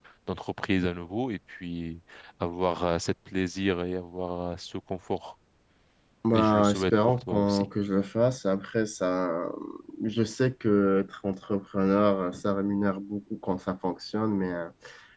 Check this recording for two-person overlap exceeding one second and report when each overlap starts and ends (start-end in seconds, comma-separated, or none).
6.3-7.7